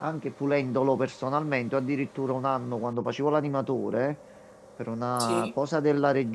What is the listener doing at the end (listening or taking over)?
listening